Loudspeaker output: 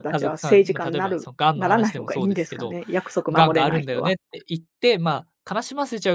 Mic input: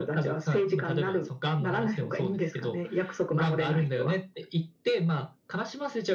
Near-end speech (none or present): none